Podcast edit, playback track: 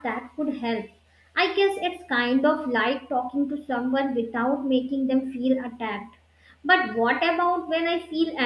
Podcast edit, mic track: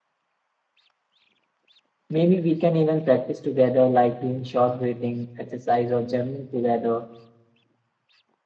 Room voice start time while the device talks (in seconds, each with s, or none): 2.1 s